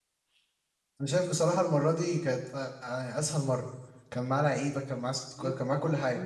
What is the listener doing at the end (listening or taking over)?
taking over